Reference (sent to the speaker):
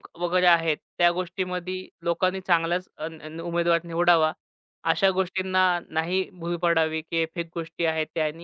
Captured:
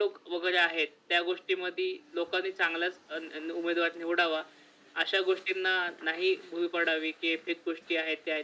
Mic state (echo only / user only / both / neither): echo only